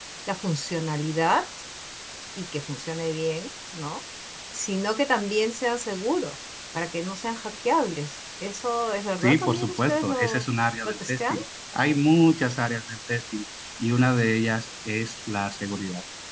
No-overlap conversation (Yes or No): No